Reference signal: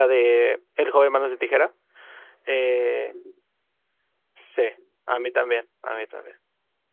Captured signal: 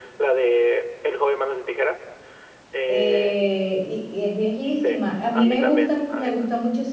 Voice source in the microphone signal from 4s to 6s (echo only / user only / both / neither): both